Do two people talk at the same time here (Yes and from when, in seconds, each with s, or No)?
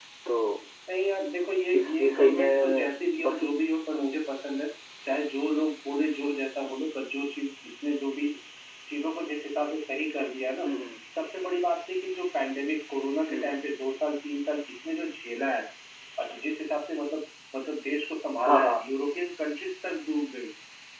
Yes, from 1.7 s